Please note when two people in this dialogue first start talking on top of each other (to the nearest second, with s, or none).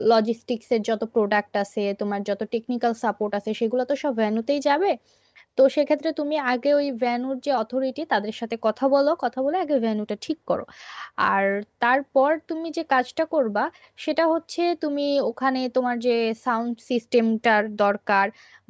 none